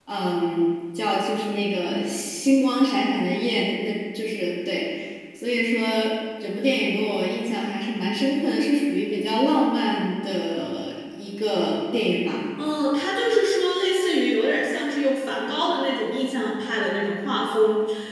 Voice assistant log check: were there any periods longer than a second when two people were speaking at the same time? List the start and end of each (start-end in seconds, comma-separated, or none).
none